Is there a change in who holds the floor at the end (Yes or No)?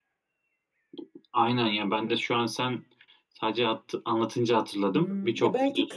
Yes